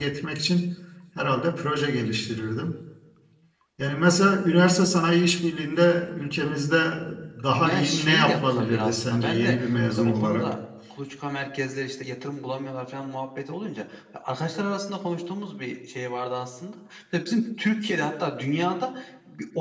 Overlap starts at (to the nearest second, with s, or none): 8 s